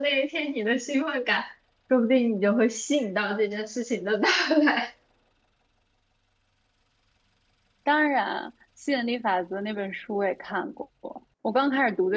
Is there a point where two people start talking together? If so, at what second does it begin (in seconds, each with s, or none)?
none